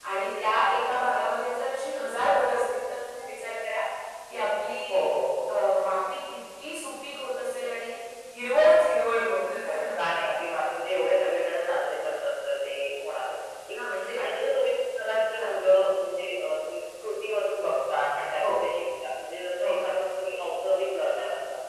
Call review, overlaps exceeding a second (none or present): none